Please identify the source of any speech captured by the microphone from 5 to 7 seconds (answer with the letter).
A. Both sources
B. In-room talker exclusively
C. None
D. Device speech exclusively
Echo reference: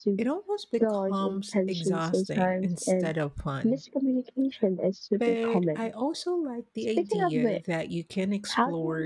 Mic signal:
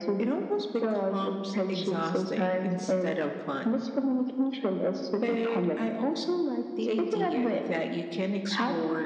D